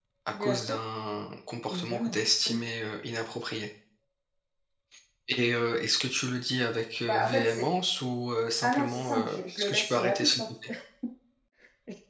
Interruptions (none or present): present